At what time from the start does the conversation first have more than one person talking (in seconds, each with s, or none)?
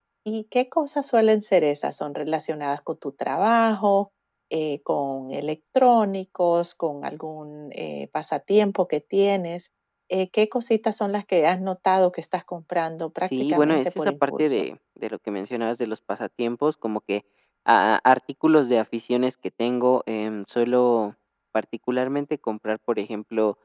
13.2 s